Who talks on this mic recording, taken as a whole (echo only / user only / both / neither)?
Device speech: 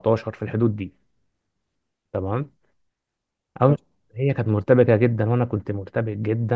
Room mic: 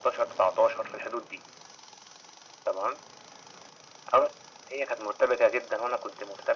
echo only